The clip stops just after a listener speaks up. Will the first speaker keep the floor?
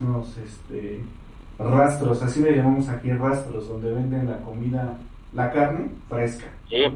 No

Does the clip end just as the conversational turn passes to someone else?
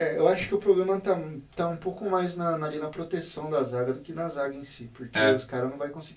No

